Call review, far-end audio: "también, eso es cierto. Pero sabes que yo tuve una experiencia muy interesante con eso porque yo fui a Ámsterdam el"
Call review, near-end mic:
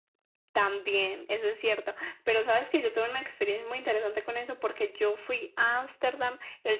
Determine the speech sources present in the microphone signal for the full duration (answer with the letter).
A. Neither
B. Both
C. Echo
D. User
C